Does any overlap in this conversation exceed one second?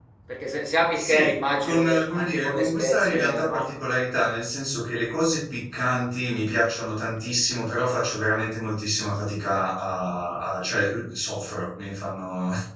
Yes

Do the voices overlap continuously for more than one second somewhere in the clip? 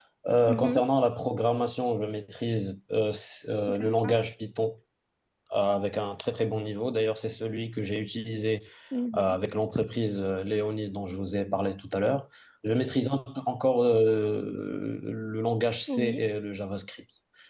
No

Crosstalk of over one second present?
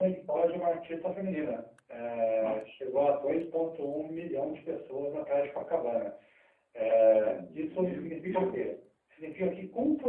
Yes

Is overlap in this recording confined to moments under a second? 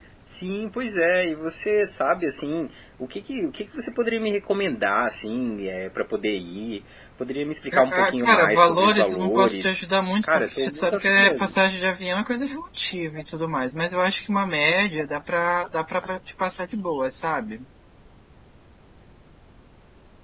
No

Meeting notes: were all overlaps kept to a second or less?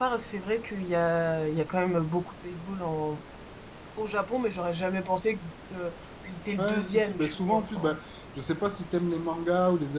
No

